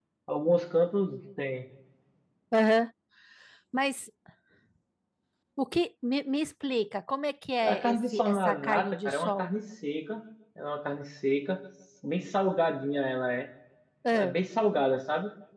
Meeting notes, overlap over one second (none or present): present